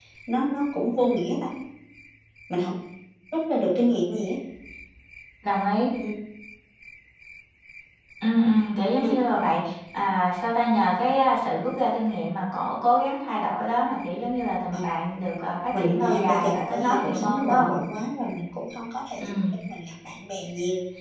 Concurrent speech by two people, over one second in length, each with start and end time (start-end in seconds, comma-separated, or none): 15.8-17.7